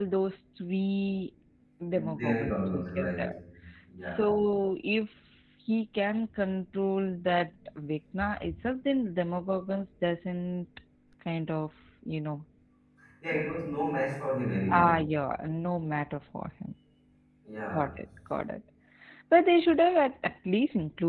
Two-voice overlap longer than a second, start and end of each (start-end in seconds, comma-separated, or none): 1.9-3.2